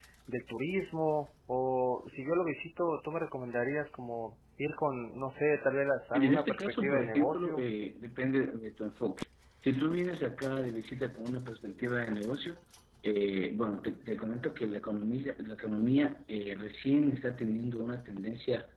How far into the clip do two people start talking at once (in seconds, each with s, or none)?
6.1 s